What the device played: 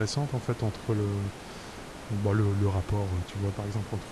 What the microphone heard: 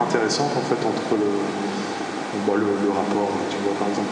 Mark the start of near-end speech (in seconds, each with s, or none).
none